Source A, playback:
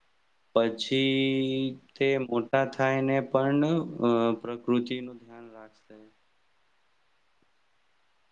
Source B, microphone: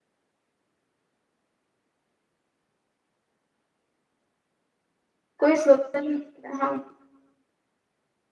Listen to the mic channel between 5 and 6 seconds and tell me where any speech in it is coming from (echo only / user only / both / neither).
user only